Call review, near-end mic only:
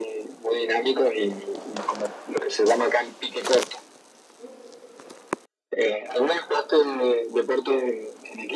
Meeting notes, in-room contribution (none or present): none